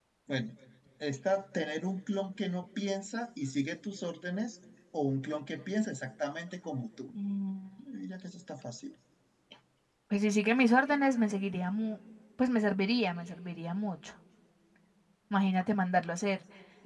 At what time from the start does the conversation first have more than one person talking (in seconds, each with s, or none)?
none